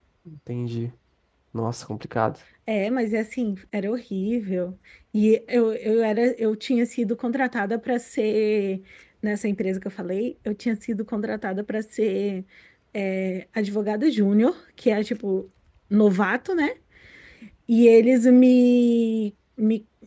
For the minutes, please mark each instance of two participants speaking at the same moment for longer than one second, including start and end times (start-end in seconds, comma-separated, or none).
none